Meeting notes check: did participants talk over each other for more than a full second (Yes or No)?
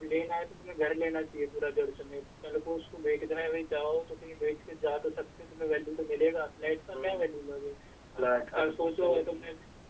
Yes